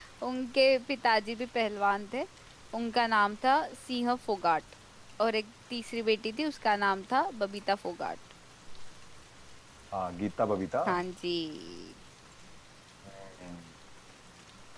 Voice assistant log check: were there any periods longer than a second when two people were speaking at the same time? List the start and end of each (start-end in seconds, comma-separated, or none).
none